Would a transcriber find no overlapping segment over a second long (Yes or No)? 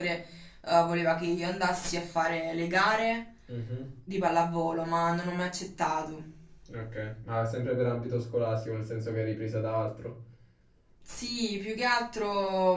Yes